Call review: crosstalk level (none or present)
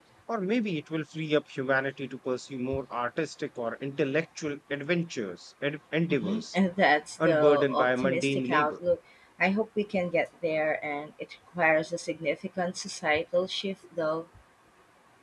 present